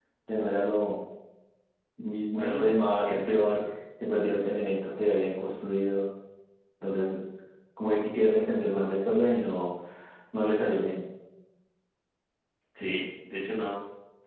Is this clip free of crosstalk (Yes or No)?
No